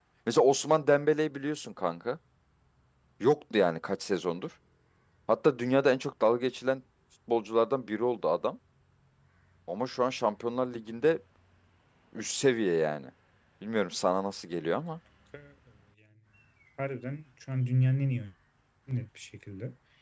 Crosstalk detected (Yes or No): No